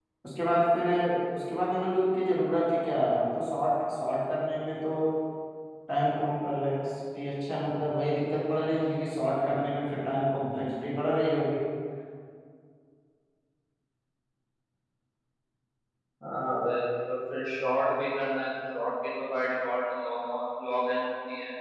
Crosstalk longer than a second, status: none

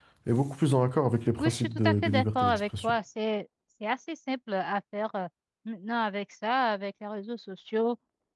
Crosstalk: present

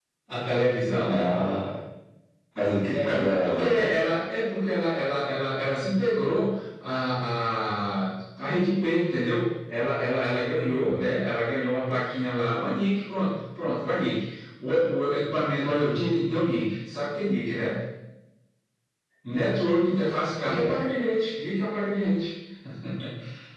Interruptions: present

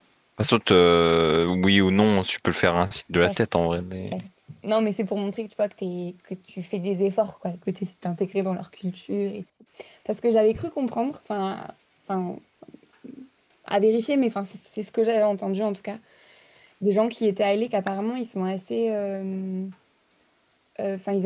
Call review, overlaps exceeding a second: none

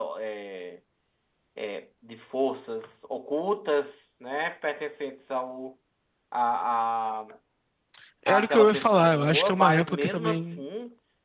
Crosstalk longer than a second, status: present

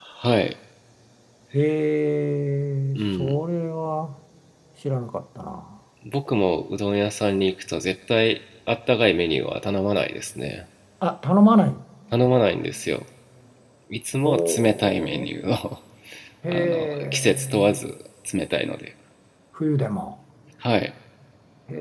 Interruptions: present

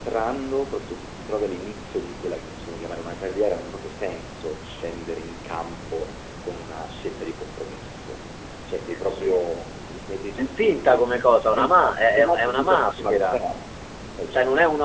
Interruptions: present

